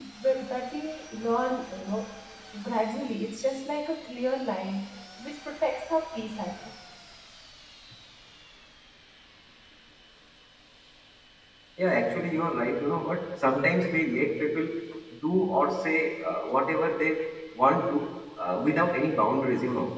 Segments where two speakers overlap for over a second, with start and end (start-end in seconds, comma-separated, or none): none